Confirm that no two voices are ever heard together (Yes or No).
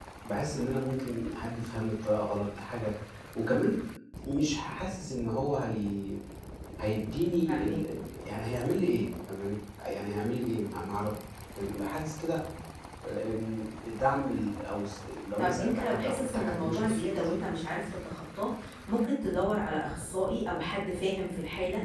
No